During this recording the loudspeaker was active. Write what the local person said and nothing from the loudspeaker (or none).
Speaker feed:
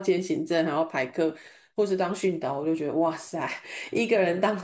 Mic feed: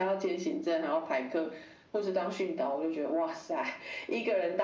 none